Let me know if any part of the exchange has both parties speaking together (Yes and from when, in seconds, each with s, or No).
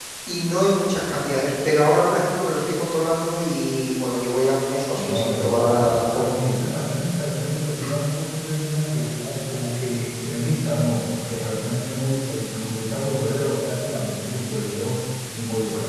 Yes, from 4.9 s